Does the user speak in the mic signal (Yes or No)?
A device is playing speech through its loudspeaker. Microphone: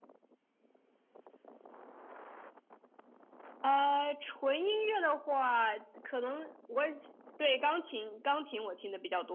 No